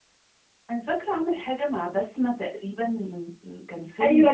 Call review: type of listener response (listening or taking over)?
taking over